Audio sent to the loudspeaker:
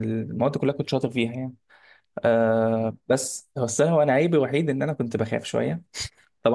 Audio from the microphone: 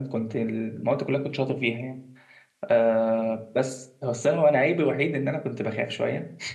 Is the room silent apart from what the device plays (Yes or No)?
Yes